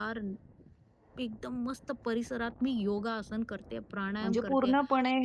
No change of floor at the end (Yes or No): No